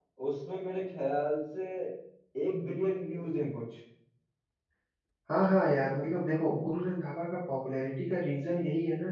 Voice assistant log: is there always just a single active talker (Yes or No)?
Yes